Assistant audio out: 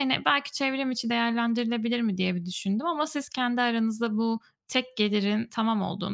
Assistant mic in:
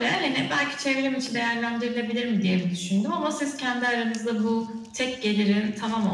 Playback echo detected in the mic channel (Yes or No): Yes